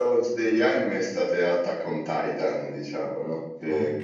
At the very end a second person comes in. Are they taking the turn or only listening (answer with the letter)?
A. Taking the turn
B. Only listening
B